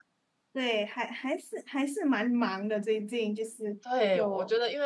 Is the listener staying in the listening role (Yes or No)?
No